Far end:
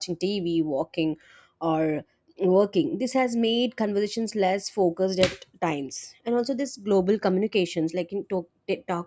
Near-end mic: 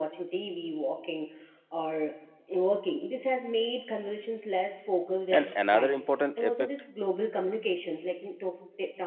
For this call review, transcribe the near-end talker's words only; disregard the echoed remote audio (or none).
And another important effect,